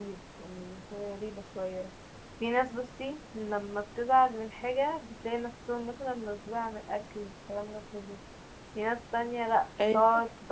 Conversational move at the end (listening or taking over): listening